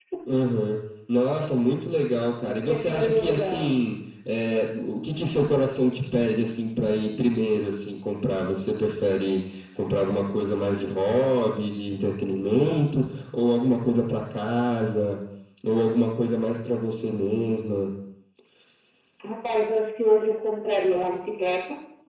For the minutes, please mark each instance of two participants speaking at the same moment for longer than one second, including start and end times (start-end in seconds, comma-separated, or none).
2.4-3.7